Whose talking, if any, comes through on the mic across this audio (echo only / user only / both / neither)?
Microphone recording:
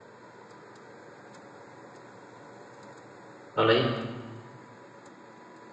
user only